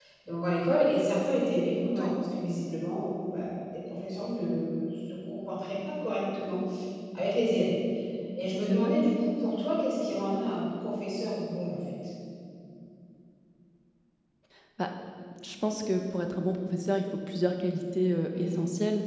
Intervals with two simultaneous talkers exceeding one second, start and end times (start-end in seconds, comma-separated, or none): none